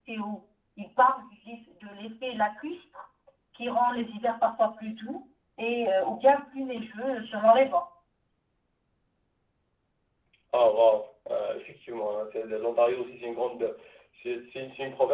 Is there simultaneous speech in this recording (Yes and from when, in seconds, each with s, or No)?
No